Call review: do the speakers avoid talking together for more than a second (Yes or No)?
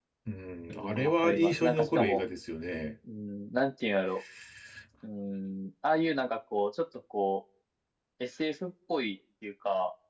No